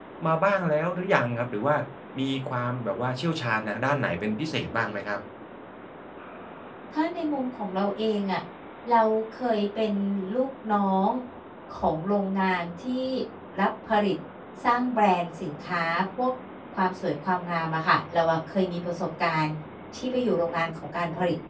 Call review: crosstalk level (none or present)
none